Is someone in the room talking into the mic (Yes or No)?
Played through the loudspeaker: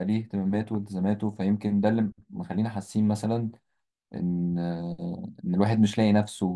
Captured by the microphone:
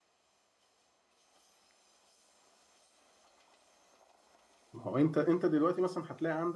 Yes